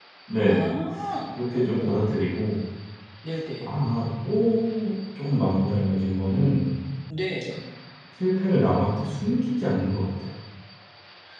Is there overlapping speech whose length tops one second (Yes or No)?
No